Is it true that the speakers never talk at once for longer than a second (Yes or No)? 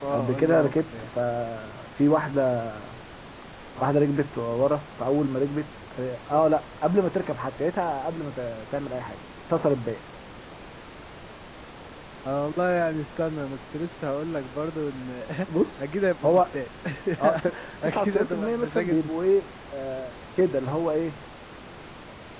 No